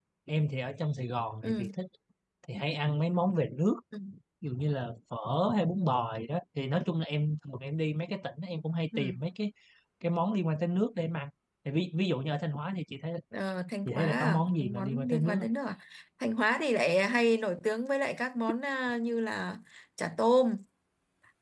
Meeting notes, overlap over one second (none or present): present